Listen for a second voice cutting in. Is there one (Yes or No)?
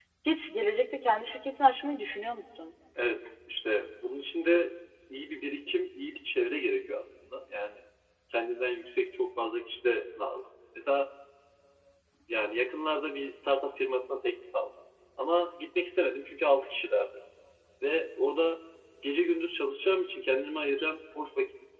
No